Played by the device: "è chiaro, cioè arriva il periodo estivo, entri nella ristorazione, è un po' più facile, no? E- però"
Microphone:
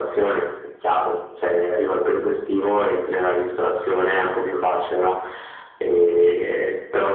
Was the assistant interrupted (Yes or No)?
No